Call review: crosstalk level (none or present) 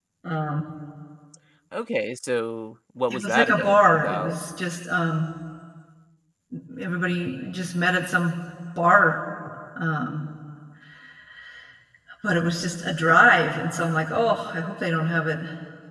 present